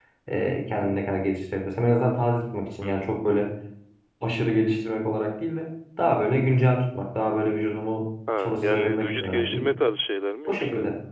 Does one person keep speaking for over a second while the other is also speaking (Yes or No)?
Yes